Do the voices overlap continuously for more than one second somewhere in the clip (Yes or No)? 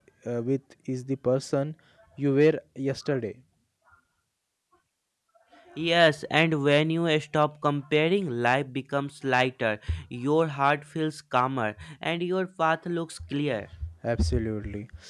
No